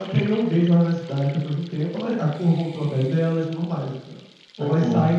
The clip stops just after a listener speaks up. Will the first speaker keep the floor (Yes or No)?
Yes